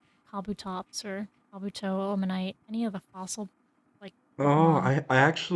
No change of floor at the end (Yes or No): No